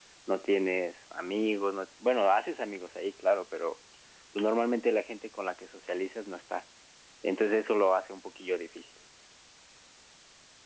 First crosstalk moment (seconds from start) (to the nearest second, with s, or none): none